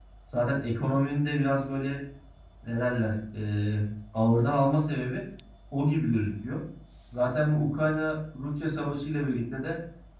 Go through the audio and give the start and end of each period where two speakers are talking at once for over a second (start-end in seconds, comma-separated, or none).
none